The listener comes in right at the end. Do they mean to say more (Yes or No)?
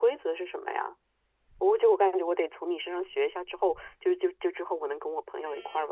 Yes